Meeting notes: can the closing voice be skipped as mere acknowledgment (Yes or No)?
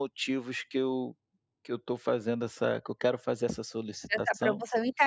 No